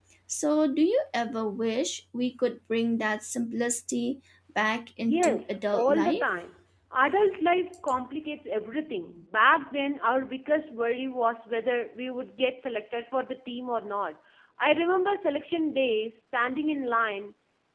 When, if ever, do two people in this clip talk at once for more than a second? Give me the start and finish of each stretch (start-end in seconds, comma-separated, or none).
5.0-6.2